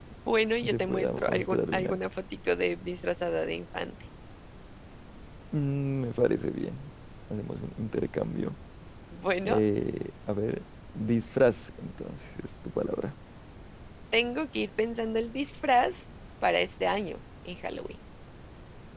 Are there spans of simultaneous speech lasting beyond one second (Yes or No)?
Yes